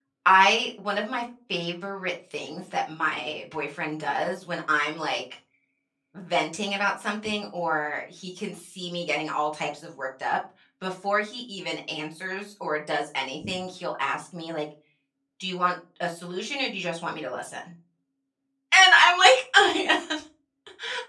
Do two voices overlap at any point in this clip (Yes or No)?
No